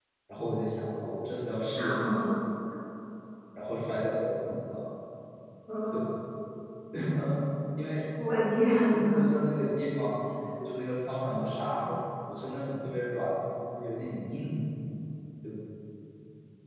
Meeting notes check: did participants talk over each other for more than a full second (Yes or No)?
No